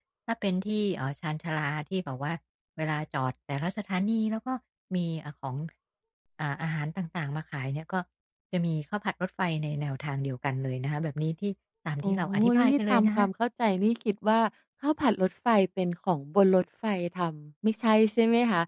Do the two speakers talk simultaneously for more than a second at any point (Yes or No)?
Yes